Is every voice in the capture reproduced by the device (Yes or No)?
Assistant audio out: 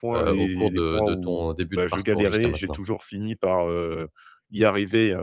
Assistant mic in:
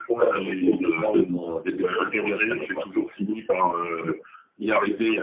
Yes